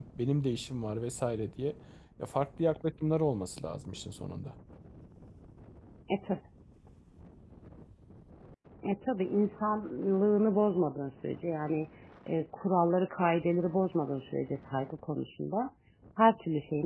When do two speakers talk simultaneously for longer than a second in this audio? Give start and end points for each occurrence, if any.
none

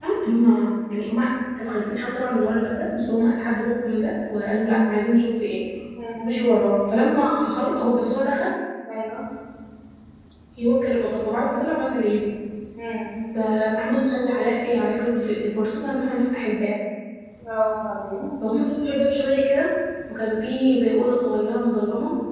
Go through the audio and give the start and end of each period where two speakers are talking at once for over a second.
none

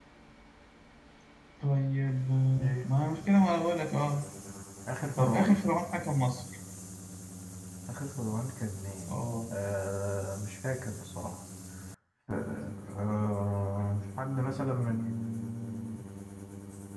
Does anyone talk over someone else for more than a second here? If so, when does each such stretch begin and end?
none

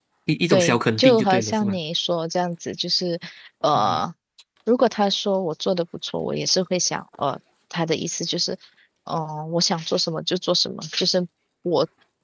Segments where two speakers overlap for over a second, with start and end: 0.5-1.8

